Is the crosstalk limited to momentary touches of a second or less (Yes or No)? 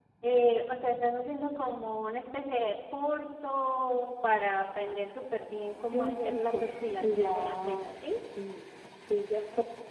No